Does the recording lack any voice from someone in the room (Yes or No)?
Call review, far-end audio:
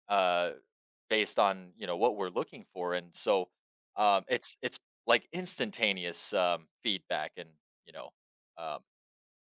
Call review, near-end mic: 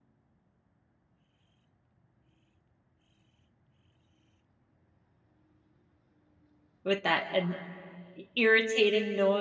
No